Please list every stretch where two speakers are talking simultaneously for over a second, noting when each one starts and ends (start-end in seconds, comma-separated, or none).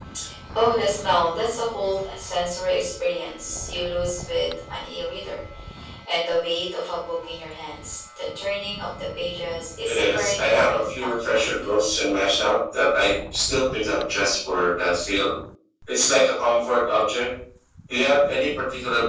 9.8-12.1